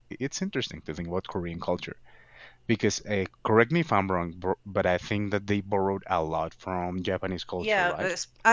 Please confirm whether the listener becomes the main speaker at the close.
Yes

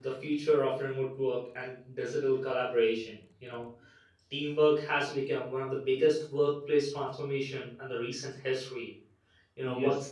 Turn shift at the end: No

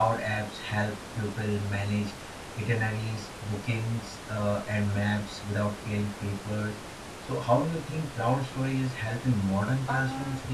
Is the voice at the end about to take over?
Yes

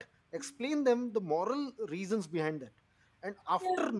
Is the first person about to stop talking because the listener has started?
No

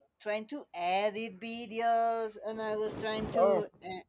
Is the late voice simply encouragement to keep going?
Yes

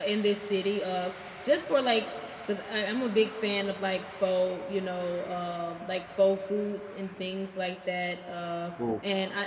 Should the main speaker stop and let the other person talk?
No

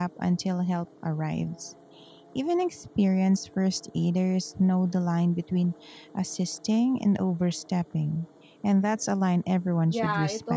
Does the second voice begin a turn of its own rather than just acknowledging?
Yes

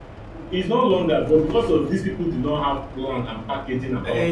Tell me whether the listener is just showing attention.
Yes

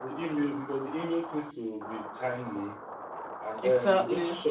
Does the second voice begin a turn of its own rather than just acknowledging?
No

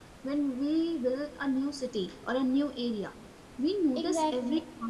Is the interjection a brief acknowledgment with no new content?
Yes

